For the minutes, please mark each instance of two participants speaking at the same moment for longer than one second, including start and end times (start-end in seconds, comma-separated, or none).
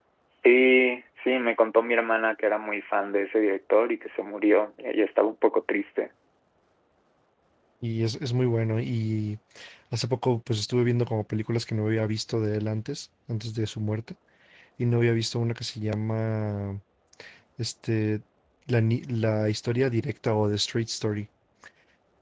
none